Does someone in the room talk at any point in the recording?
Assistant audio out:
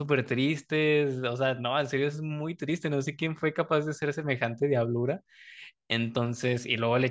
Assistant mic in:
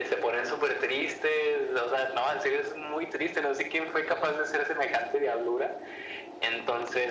No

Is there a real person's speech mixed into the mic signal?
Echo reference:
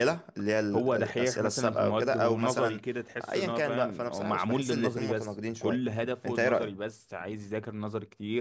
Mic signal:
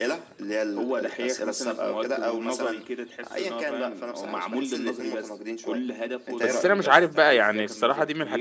Yes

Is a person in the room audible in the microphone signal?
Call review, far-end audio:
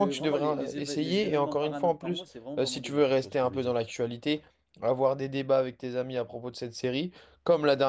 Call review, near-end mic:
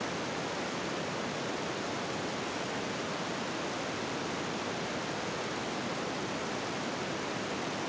No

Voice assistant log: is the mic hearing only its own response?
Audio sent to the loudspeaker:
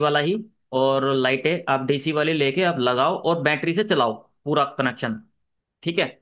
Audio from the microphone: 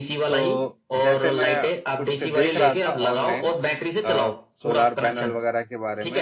No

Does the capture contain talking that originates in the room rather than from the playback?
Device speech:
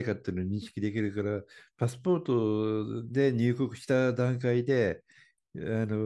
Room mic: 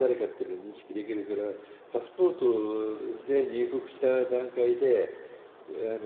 No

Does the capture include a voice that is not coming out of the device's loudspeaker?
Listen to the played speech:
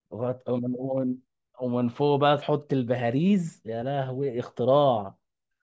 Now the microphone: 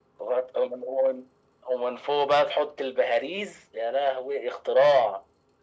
No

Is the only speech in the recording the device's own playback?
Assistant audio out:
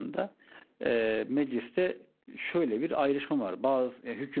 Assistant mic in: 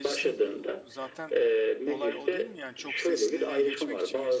No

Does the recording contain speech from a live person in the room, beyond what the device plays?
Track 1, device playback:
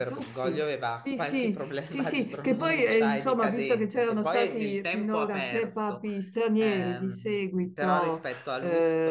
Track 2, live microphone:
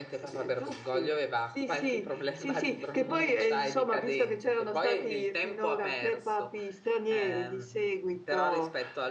No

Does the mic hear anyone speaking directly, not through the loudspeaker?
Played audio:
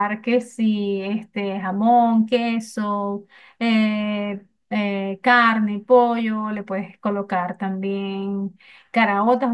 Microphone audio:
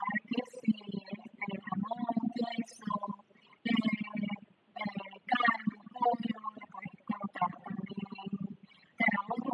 No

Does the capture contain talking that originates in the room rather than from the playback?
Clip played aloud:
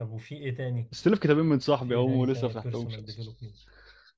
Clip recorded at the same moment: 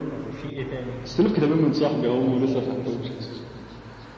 No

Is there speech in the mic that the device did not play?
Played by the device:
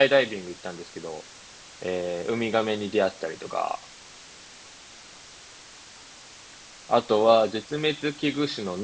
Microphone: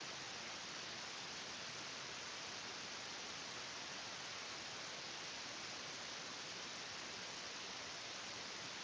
No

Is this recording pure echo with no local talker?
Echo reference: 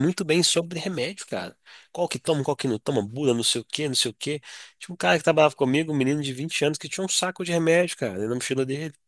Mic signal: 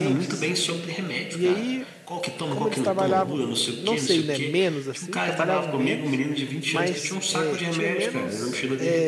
No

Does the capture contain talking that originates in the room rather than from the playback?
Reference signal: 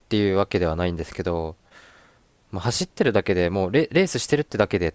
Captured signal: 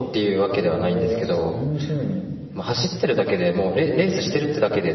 Yes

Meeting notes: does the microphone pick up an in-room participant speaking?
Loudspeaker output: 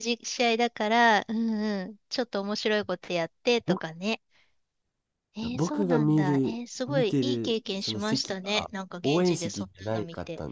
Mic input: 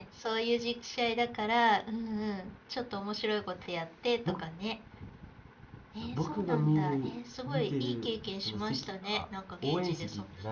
No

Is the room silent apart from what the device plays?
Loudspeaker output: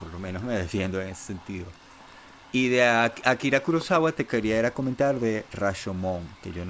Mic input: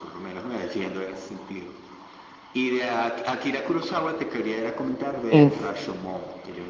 No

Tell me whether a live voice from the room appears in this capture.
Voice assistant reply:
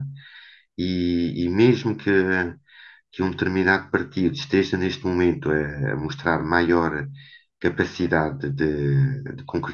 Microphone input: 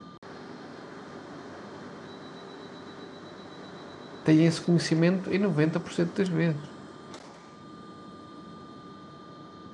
Yes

